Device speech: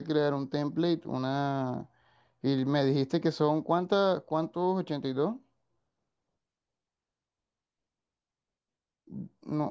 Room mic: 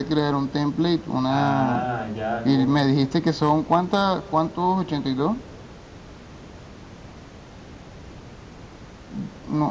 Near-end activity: present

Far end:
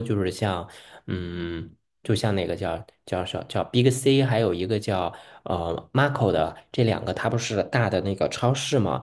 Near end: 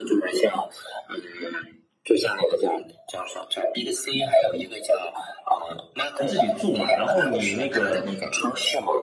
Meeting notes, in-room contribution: present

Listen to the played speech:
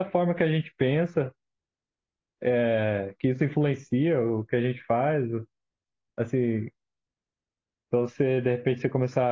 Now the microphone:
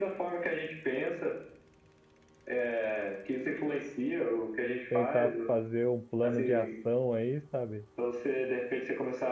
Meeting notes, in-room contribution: present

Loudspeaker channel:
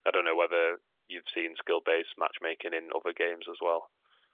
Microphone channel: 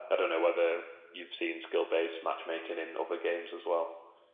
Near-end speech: none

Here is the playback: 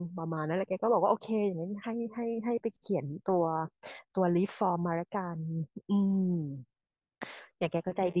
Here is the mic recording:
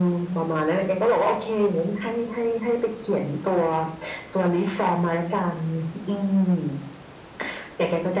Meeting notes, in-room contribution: none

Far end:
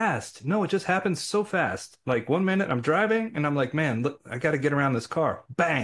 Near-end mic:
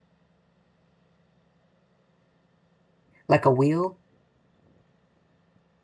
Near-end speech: present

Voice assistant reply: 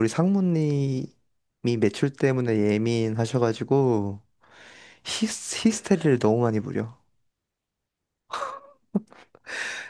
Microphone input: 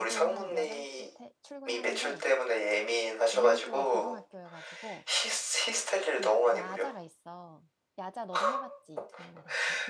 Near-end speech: present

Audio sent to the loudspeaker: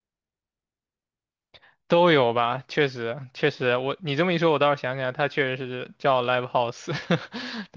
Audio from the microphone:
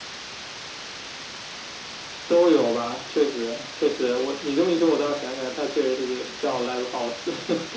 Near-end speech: none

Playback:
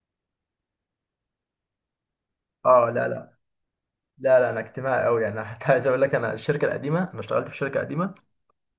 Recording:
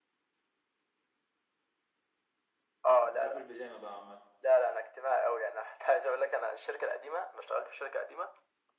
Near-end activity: present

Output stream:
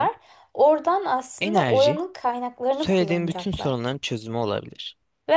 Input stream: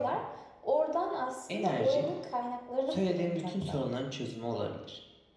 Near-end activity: none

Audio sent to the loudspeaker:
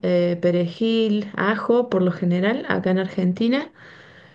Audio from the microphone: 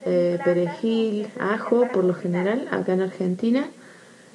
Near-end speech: present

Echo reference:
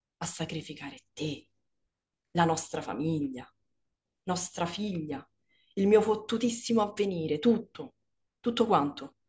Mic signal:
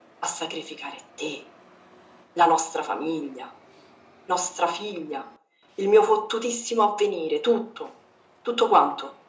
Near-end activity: none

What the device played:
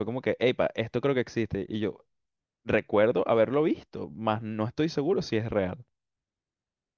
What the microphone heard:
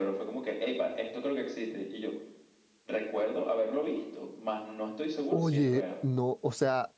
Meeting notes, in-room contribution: present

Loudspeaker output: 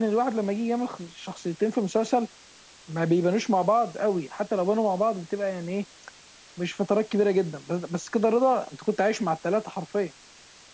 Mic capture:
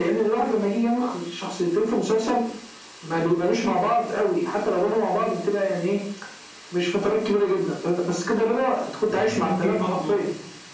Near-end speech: present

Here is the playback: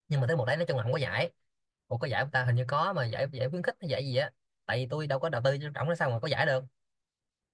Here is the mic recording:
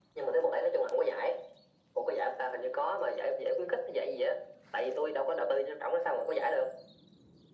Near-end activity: none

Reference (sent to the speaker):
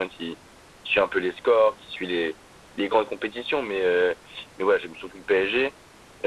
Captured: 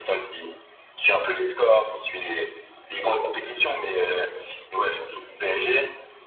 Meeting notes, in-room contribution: none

